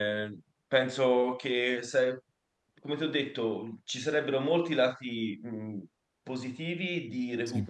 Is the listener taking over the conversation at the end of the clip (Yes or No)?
No